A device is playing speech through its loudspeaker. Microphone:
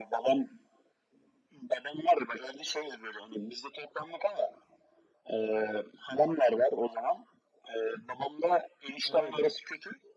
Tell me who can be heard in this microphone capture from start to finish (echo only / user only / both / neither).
both